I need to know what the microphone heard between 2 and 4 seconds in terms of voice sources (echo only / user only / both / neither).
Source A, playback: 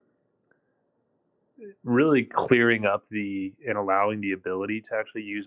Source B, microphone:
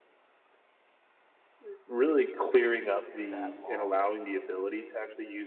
both